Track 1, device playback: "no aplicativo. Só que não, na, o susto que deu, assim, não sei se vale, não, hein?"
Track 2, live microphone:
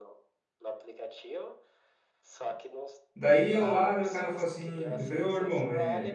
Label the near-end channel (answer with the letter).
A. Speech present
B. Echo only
A